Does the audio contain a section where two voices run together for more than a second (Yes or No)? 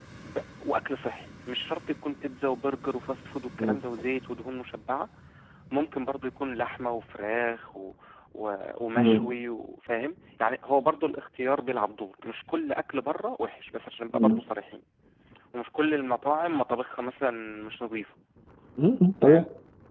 No